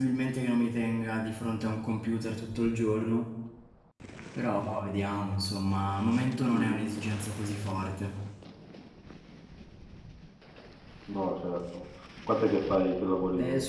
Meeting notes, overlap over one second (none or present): none